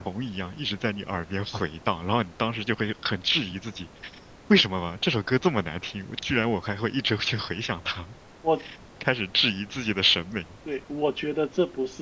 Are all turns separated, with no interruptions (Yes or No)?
Yes